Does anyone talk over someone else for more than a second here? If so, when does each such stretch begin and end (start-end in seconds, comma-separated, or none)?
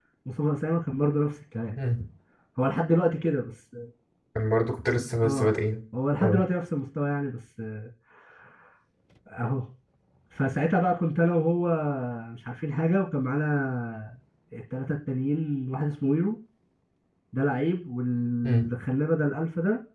none